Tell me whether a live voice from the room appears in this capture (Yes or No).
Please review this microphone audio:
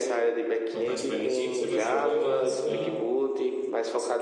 Yes